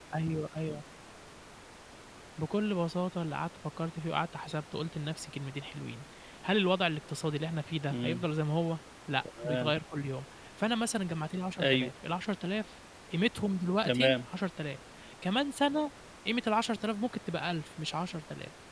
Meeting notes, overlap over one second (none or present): none